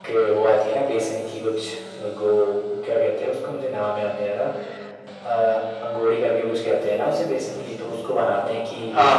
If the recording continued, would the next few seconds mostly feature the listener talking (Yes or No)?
No